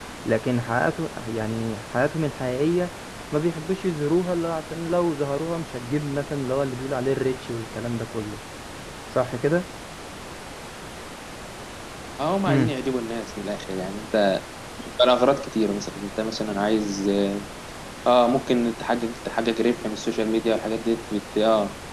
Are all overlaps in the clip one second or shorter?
Yes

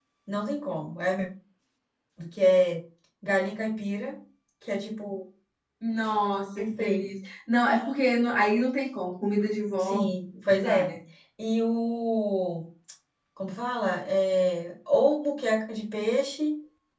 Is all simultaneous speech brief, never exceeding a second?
Yes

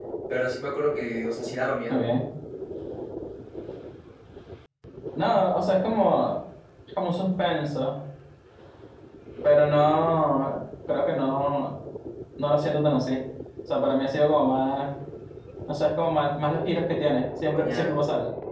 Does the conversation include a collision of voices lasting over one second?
No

